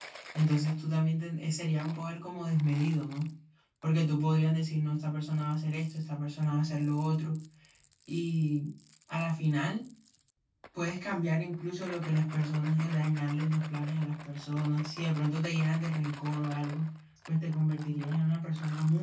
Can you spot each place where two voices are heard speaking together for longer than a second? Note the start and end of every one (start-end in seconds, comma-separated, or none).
none